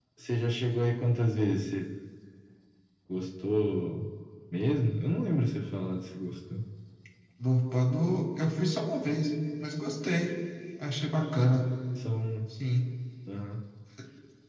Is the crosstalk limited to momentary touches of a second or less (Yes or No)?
Yes